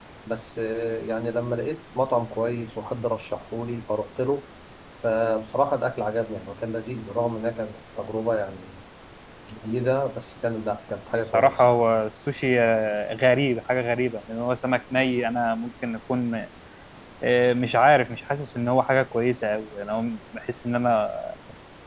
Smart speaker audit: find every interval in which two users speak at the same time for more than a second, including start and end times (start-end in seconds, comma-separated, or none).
none